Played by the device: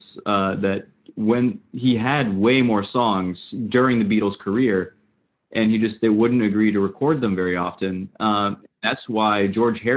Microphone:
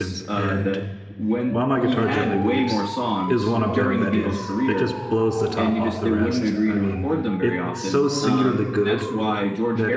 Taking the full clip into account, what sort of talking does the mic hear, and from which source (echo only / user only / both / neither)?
both